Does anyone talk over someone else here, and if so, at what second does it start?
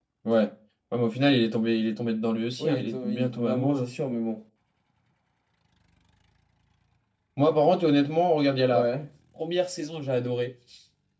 3 s

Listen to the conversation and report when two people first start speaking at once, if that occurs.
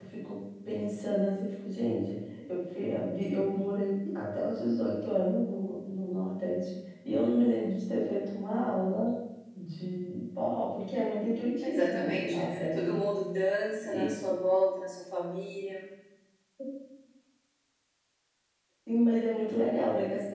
12 s

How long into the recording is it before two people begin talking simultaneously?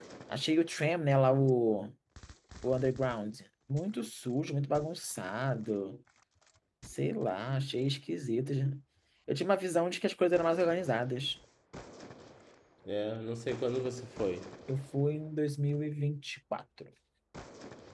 none

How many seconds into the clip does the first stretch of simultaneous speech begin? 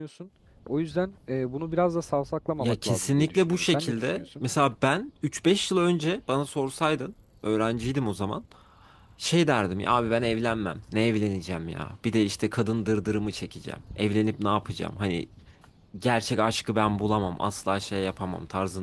3 s

